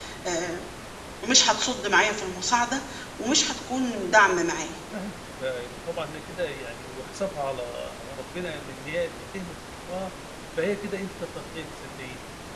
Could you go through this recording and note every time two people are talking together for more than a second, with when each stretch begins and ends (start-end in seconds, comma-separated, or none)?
none